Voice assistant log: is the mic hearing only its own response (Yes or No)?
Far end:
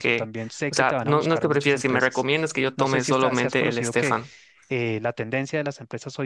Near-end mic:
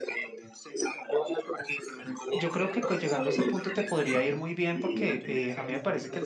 No